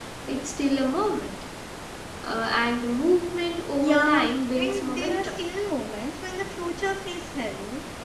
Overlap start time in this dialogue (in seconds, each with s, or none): 3.8 s